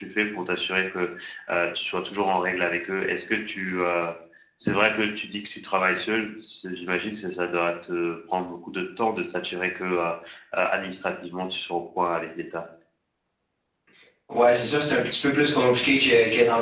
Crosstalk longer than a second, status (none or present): none